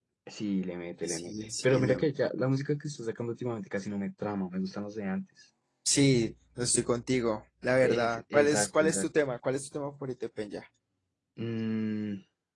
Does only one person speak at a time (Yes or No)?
No